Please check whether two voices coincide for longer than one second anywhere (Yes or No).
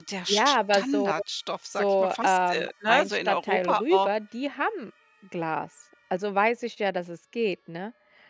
Yes